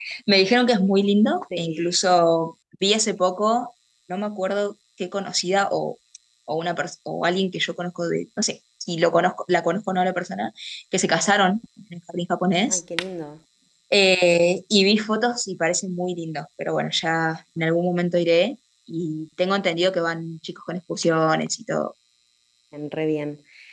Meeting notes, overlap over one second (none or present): none